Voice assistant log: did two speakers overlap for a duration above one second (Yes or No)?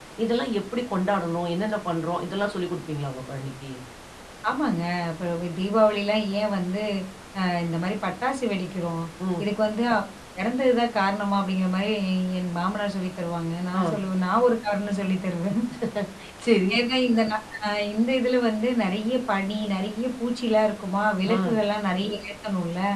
No